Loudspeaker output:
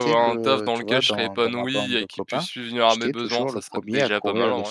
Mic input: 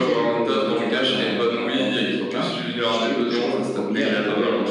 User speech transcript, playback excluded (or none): none